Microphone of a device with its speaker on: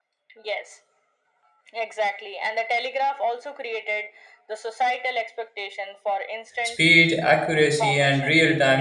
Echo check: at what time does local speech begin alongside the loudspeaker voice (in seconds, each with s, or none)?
6.6 s